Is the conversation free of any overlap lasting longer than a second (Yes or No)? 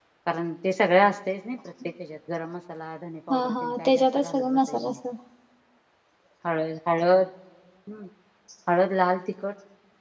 No